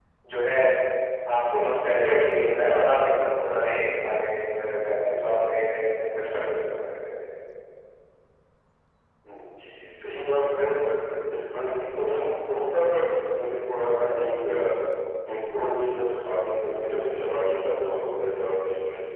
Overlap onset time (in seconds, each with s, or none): none